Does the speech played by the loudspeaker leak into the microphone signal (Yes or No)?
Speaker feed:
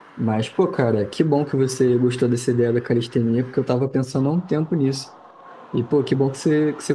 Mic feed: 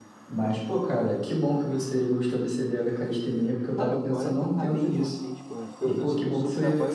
Yes